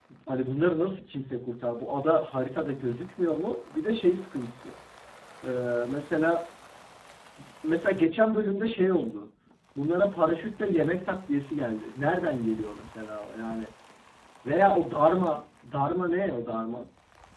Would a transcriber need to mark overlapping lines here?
No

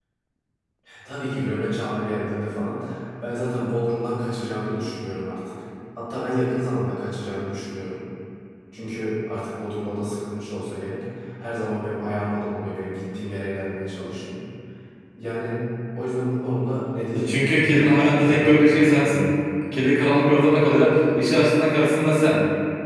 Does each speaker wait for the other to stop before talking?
No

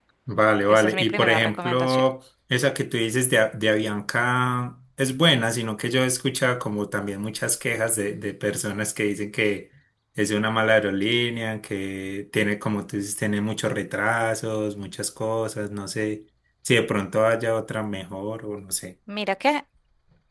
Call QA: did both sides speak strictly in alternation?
No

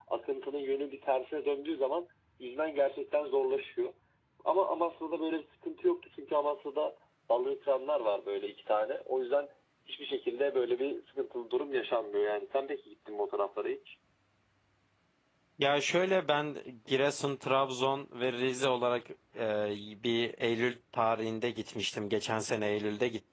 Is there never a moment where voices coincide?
Yes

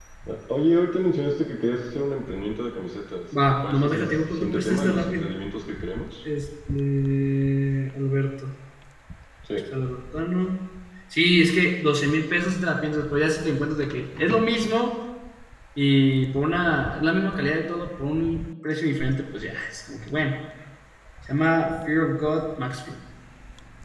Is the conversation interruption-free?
No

